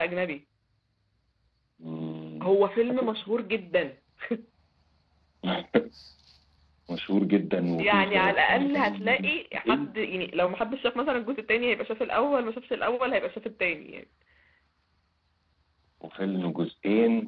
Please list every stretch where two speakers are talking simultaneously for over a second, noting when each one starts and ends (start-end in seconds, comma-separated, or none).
7.8-9.2